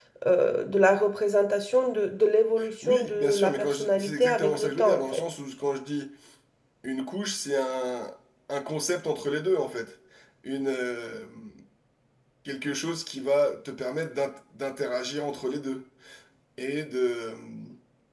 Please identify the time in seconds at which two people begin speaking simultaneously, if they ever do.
2.8 s

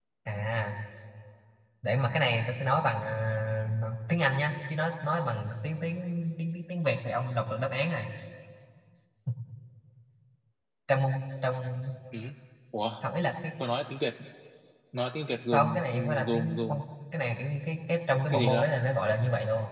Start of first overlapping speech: 15.5 s

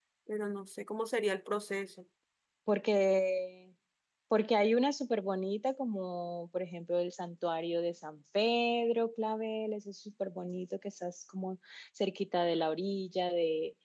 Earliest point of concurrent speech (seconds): none

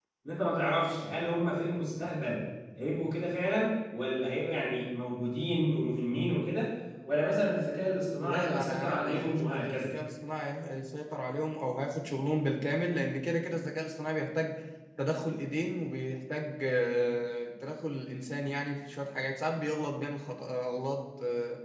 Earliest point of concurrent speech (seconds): 8.2 s

